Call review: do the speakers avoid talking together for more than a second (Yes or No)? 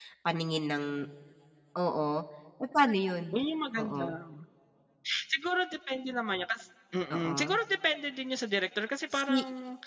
Yes